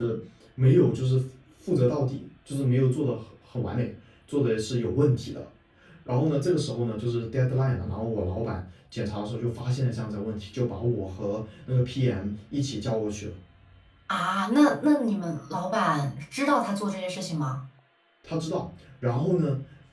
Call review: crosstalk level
none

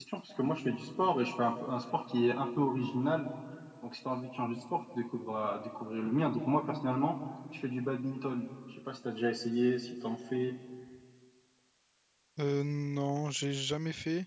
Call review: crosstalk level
none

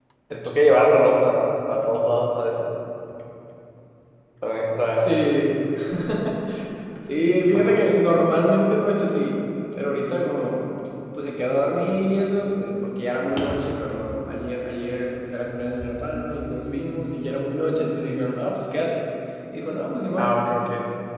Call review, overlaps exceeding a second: none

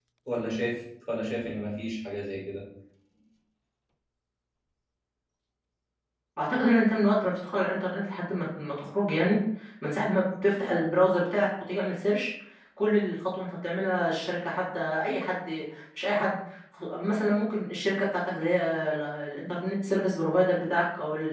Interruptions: none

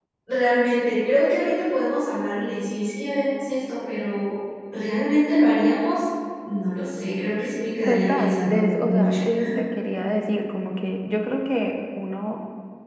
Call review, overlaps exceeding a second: present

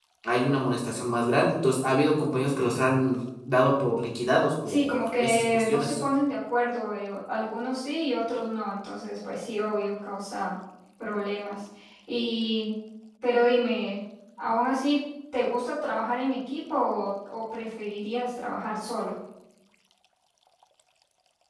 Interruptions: present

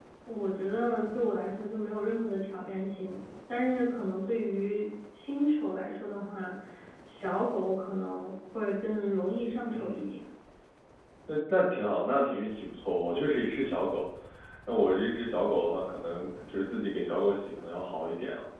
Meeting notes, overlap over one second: none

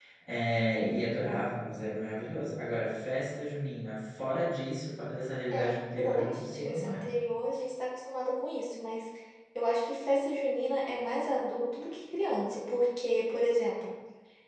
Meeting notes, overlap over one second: present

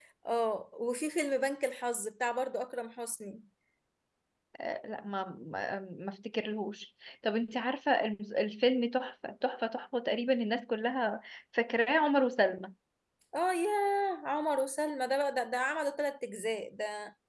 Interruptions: none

